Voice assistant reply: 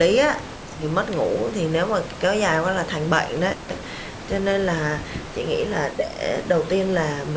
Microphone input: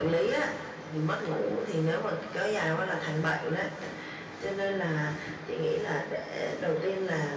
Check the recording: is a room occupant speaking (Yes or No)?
Yes